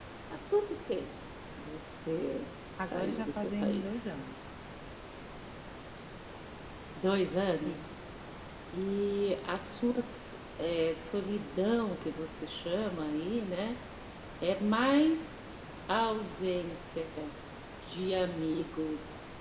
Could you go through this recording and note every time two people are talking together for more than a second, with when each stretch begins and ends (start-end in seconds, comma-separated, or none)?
2.8-4.1